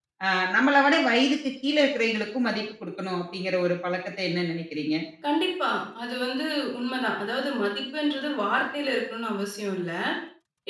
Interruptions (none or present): none